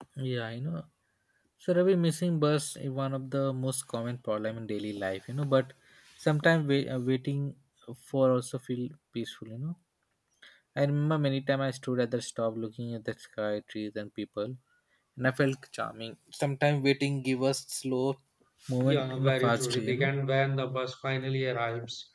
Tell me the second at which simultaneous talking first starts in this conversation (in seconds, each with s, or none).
18.9 s